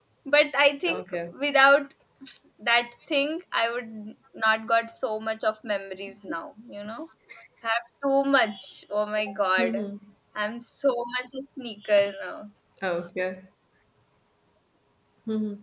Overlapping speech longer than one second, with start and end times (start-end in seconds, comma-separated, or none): none